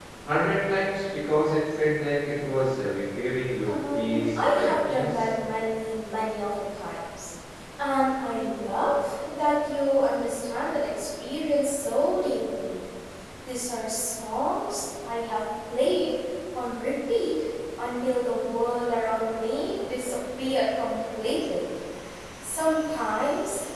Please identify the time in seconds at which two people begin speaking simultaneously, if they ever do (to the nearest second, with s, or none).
4 s